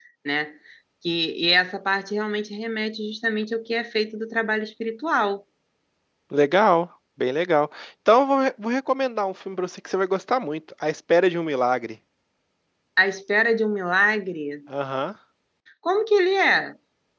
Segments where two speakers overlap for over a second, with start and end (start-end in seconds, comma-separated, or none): none